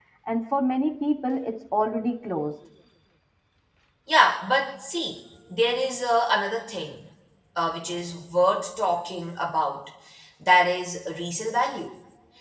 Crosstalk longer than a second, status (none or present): none